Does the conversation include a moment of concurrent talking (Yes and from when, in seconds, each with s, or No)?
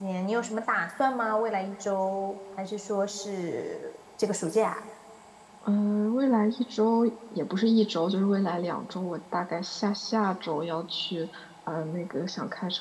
No